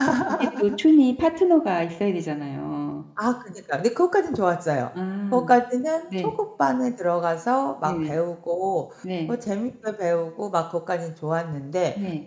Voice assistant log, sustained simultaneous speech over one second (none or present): none